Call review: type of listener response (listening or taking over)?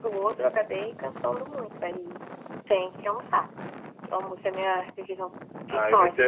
taking over